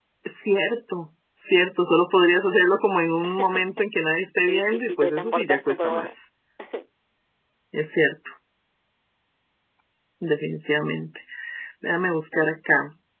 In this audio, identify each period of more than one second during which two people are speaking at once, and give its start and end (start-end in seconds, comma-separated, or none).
4.5-6.1